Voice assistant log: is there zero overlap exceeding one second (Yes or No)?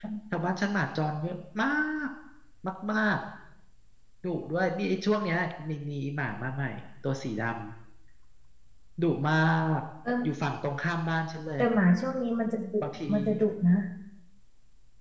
Yes